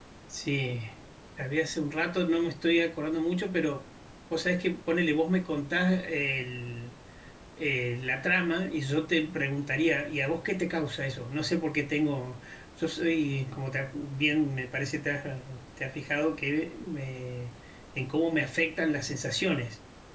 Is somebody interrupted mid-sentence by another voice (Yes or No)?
No